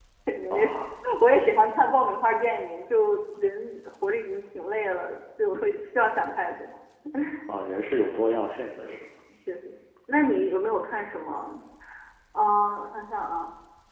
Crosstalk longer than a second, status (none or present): none